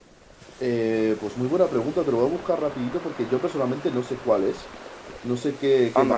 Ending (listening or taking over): taking over